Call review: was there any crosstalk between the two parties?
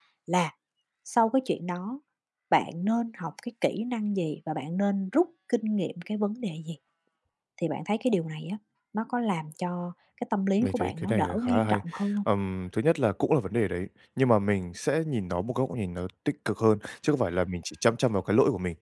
Yes, from 10.6 s

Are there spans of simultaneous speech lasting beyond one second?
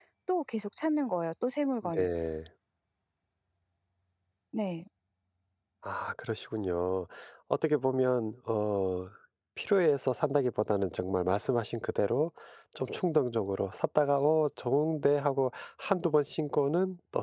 No

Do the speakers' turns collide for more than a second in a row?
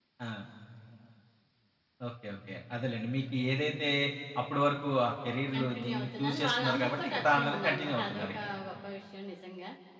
Yes, from 5.5 s

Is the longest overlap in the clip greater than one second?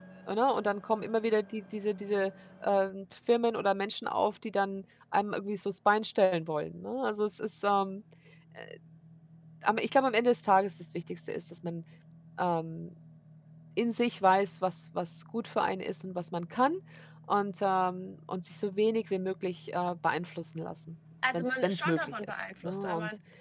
Yes, from 21.2 s

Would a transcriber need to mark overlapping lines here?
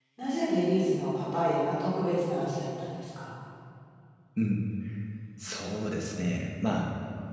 No

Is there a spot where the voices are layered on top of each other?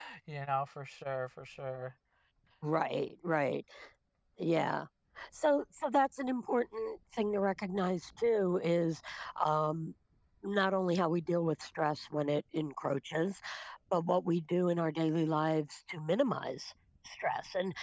No

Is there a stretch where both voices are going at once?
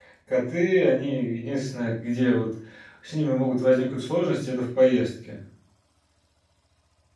No

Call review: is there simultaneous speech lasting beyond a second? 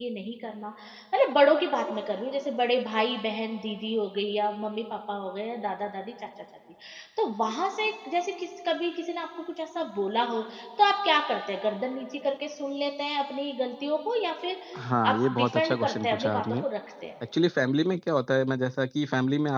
Yes, from 15.0 s

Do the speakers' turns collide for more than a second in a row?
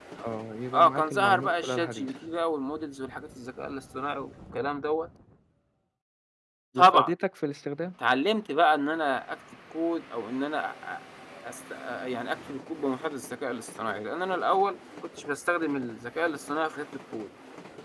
Yes, from 0.7 s

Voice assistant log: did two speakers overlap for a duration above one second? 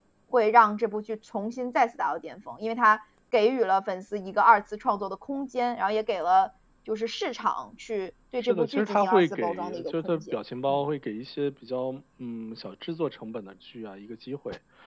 Yes, from 8.4 s

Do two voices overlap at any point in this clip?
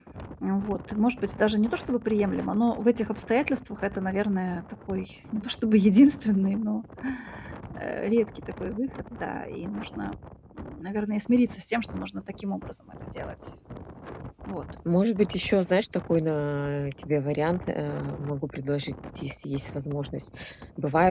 No

